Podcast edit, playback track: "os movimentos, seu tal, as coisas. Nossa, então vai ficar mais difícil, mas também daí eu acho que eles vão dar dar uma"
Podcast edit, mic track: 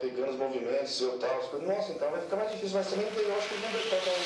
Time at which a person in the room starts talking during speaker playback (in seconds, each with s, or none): none